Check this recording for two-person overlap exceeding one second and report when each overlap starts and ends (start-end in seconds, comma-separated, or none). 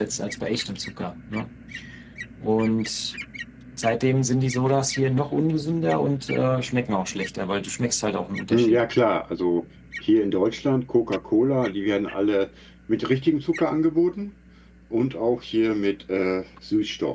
none